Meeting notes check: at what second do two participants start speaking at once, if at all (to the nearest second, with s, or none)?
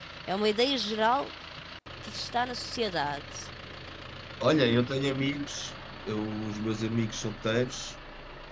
none